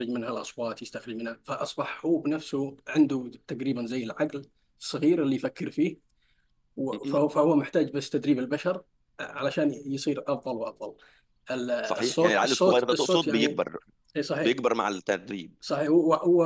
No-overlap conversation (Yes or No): No